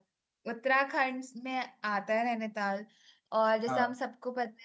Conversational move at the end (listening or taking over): listening